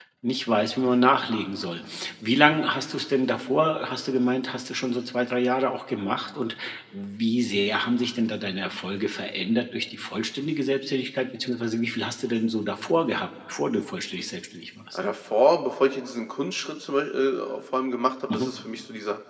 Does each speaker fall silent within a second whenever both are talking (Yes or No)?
Yes